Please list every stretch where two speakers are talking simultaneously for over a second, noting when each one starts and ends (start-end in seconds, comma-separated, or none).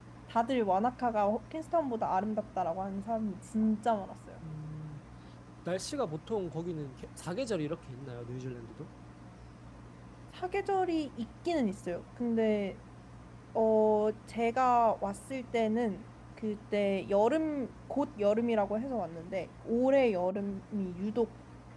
none